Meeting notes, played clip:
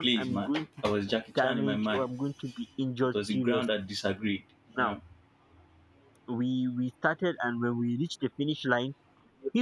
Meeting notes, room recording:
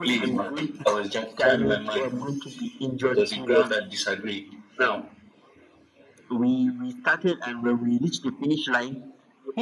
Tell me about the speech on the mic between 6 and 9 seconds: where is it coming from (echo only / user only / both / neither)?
echo only